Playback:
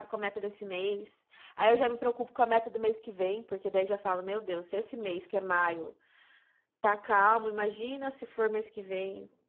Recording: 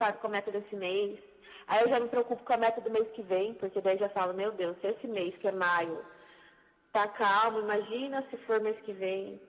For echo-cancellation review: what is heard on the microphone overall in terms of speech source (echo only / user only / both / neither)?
echo only